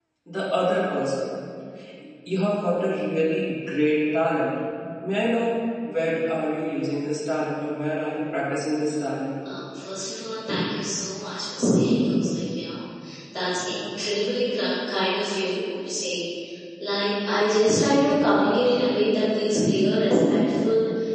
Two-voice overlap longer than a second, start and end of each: none

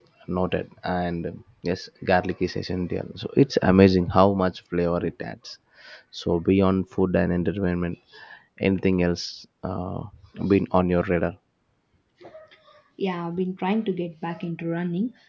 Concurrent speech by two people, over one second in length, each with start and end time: none

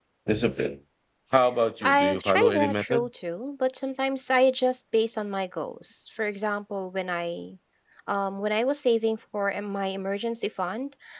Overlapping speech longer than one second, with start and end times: 1.8-3.1

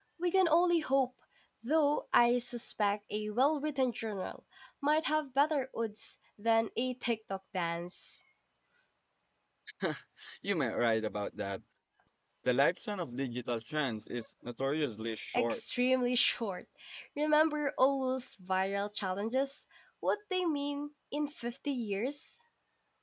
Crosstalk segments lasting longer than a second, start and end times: none

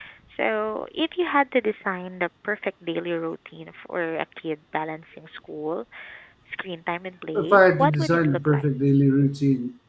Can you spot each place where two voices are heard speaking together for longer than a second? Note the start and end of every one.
7.3-8.7

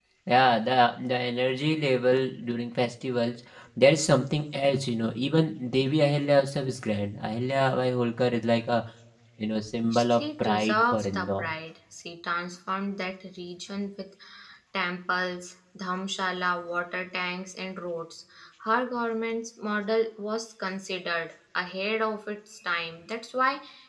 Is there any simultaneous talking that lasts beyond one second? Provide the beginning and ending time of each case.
9.9-11.5

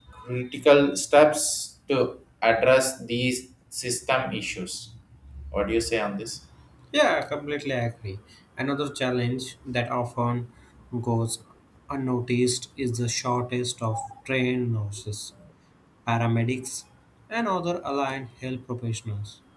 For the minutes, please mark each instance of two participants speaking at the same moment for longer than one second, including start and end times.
none

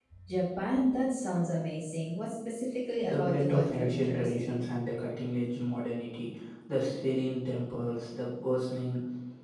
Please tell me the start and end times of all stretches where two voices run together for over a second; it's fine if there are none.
3.0-4.6

